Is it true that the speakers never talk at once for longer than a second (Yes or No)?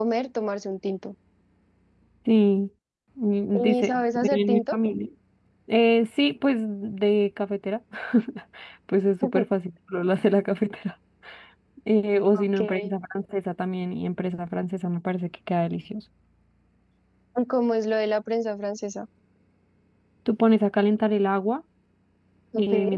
No